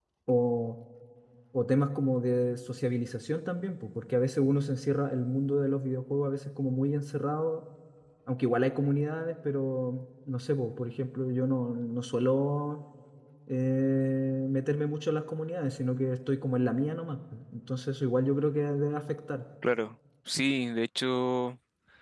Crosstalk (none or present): none